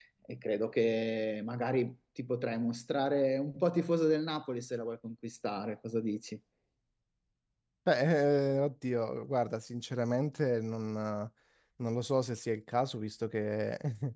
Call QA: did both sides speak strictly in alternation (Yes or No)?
Yes